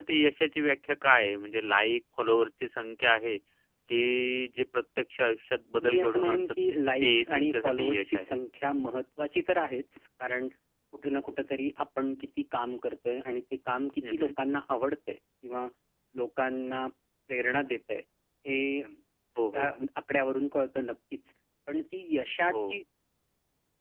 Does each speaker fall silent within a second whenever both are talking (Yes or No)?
No